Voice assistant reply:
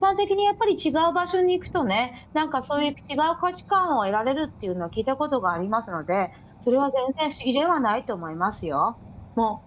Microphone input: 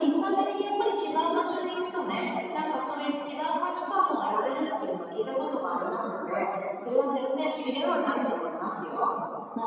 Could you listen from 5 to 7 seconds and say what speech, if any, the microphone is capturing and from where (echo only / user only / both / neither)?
echo only